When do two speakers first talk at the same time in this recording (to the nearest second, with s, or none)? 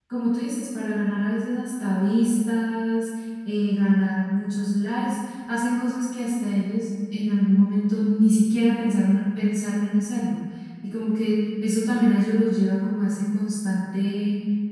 none